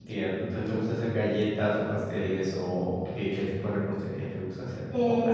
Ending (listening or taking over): taking over